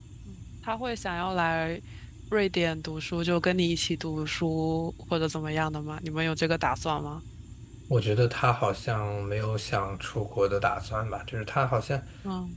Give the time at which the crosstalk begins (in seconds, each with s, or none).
none